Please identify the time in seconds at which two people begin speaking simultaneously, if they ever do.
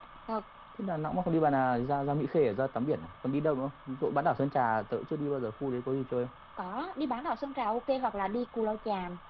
none

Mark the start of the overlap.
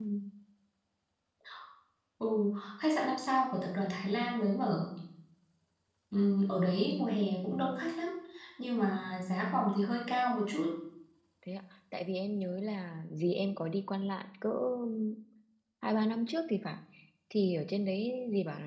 none

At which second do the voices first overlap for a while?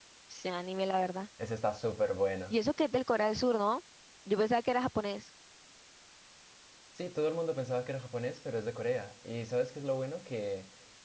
none

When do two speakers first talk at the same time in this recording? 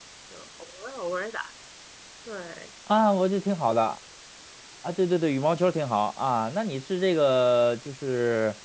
none

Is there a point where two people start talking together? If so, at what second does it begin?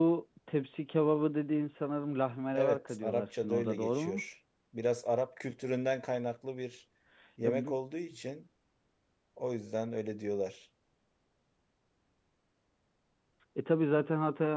2.5 s

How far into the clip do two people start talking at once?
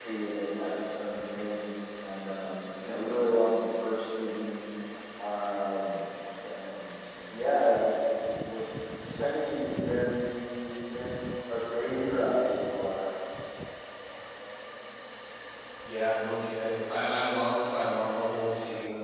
none

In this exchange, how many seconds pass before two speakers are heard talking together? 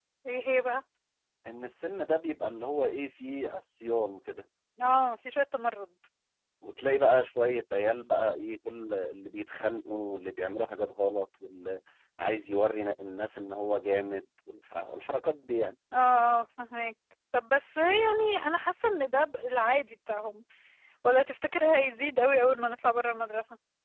none

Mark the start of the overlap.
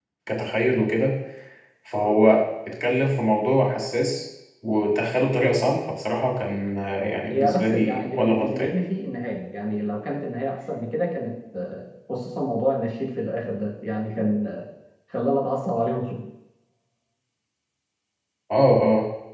7.0 s

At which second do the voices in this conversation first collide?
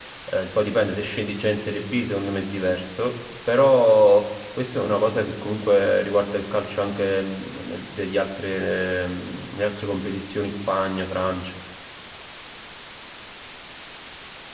none

